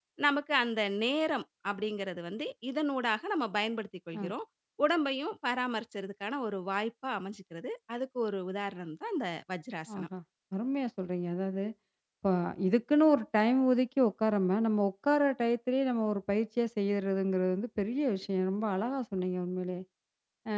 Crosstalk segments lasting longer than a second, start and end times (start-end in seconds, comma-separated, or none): none